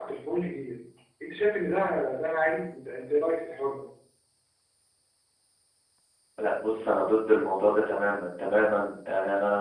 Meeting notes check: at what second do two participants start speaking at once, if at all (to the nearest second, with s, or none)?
none